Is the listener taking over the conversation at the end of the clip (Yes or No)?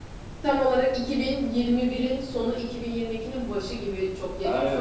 Yes